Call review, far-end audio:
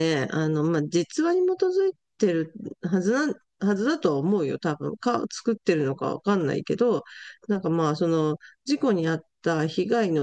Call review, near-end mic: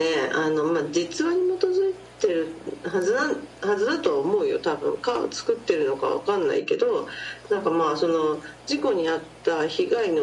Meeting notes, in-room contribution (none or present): none